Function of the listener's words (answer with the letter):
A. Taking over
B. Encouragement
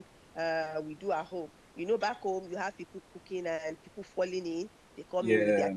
B